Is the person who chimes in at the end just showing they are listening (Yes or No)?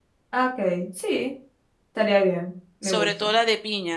No